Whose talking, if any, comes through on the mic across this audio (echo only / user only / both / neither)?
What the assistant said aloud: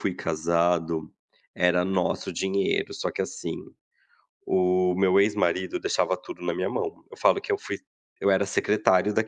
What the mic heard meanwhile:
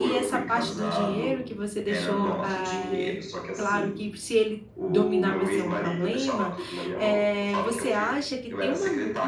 both